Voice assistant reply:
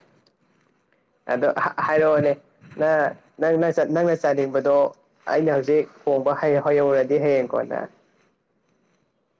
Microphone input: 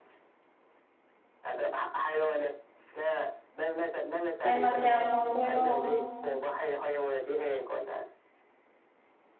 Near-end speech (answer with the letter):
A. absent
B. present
B